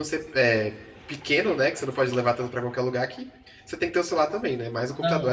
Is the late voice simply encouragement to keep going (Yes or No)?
No